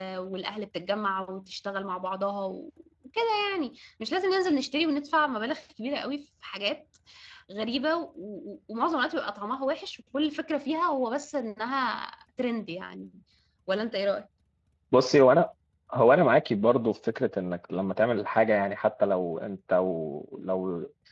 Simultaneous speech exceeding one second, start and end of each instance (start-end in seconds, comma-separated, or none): none